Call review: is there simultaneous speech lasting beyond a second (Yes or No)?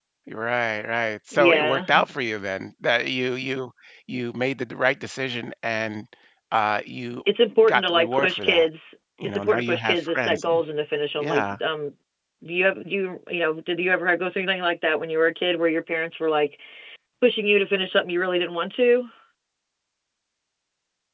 Yes